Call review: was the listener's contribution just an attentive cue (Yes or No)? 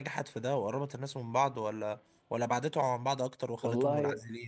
No